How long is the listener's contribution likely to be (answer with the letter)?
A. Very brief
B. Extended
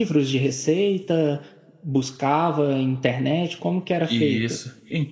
B